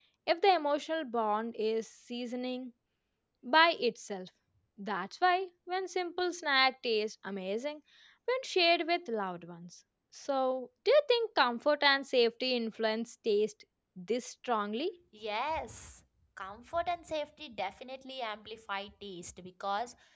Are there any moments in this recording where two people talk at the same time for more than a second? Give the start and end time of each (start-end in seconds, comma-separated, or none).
none